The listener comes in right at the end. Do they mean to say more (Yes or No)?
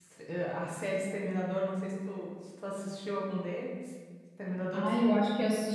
Yes